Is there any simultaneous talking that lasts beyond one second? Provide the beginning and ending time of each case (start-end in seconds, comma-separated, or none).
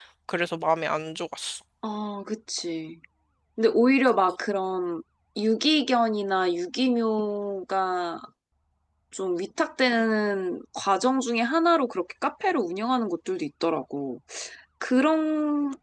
none